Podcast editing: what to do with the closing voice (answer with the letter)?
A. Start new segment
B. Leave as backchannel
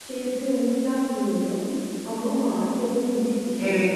A